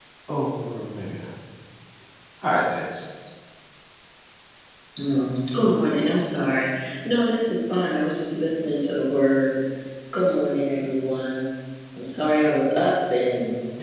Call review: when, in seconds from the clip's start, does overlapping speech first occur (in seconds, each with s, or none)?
none